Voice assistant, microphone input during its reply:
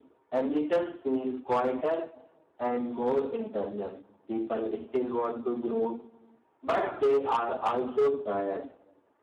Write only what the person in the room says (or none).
none